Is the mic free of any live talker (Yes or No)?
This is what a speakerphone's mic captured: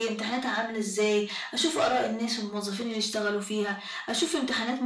Yes